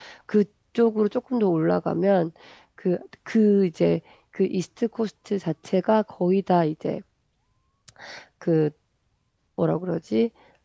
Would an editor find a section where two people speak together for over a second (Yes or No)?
No